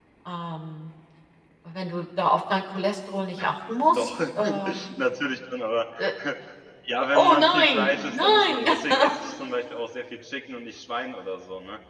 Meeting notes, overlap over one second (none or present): present